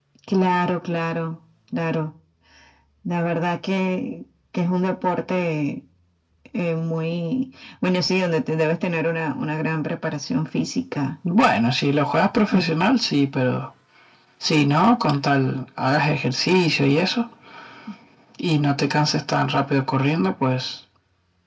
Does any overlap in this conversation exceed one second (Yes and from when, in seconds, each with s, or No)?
No